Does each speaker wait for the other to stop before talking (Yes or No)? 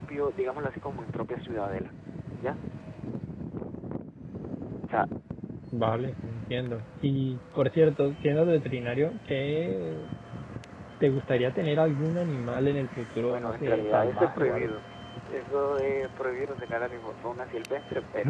No